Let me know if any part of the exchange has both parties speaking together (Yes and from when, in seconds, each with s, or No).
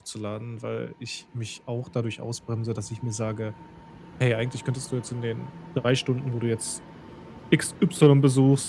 No